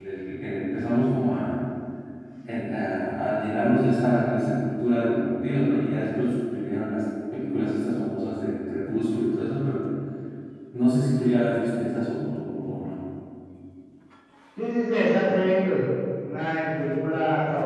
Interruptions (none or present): none